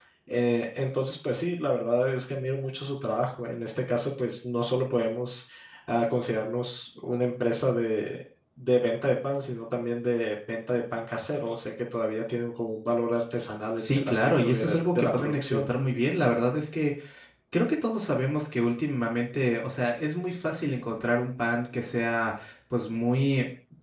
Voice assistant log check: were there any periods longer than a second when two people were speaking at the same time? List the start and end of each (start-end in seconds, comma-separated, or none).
13.8-15.7